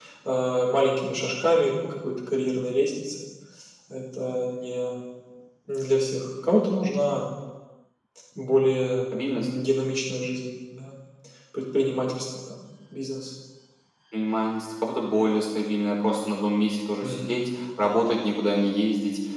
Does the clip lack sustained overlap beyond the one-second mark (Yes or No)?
Yes